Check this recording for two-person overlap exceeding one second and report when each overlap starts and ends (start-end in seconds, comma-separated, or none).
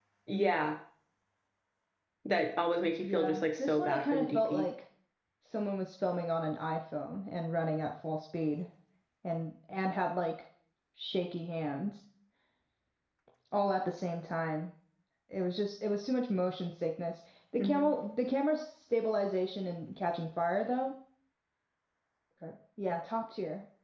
3.0-4.7